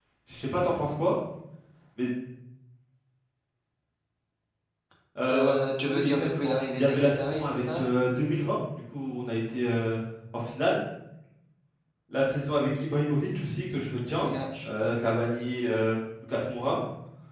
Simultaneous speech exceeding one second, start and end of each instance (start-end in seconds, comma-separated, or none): 5.9-7.8